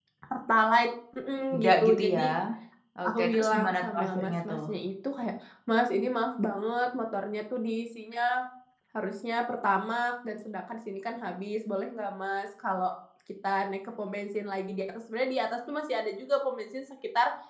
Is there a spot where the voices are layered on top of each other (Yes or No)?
Yes